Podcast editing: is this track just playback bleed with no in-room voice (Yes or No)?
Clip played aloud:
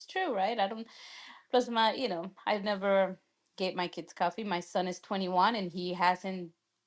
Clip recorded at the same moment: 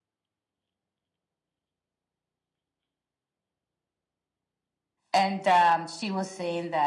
No